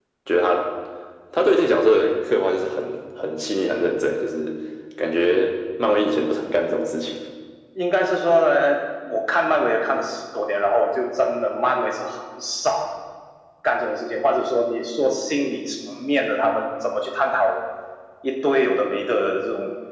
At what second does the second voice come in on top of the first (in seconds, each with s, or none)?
none